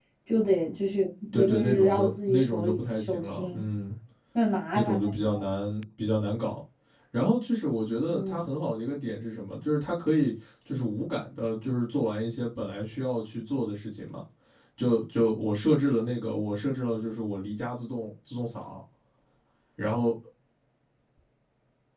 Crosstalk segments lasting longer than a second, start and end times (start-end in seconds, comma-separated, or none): 1.3-3.6